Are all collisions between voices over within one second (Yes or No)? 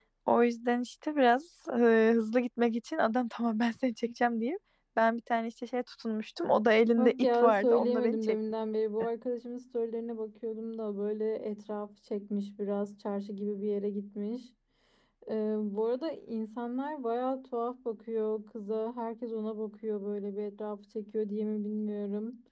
No